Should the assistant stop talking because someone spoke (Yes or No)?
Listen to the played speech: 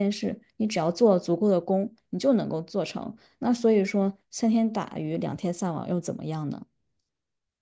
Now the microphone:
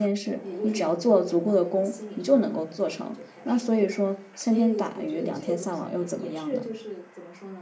Yes